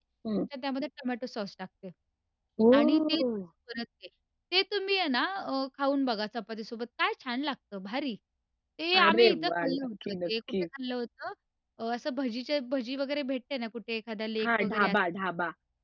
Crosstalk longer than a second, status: present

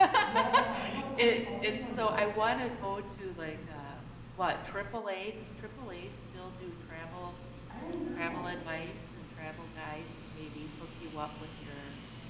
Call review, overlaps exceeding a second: present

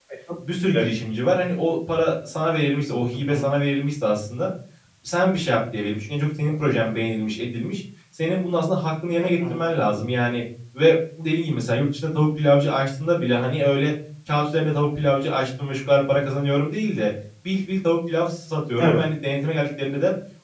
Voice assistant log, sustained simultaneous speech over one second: none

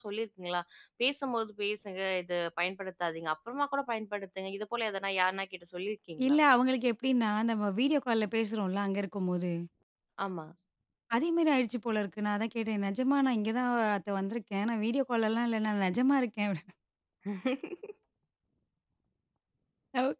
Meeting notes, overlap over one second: none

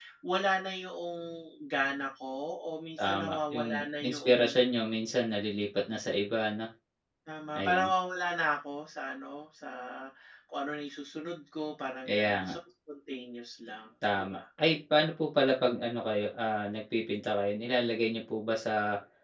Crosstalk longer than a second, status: present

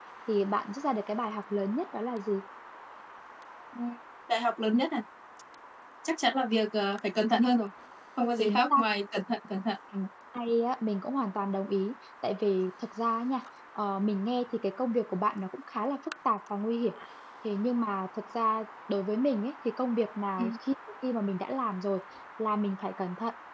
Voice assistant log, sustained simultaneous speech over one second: none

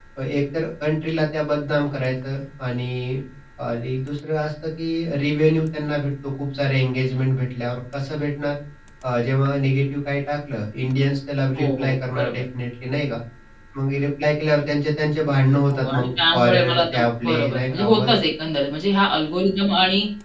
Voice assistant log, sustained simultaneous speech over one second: present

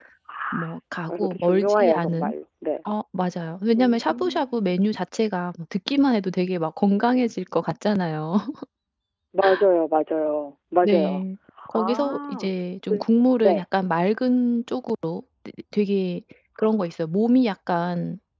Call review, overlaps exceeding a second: present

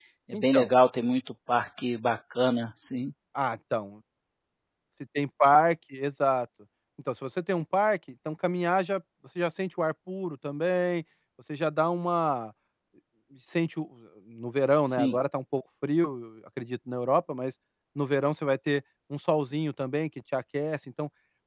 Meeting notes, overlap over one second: none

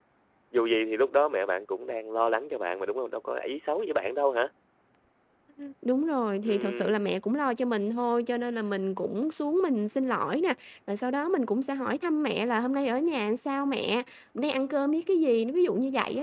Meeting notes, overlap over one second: none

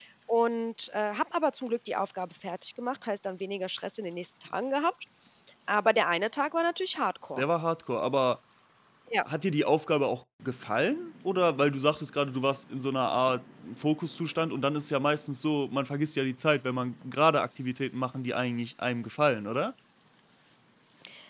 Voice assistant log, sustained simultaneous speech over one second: none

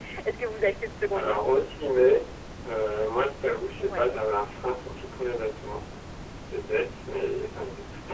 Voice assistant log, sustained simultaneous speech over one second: none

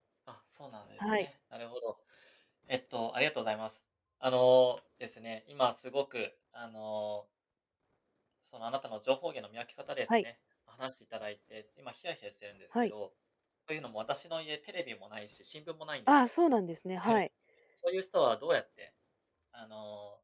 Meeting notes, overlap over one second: none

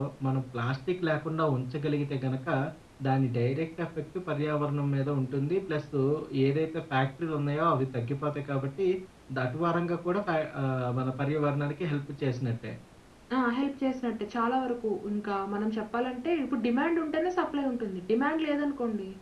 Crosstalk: none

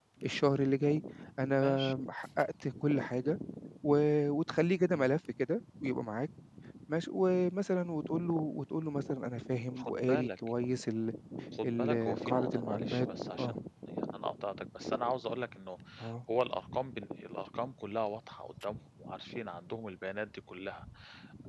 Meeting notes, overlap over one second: present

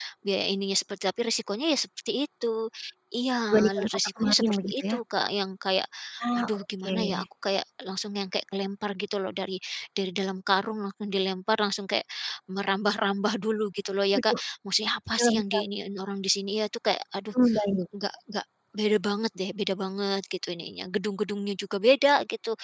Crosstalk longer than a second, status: present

